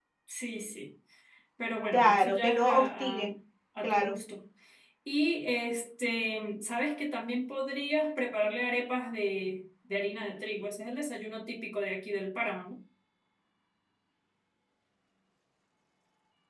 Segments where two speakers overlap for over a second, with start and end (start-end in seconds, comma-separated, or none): 1.9-3.2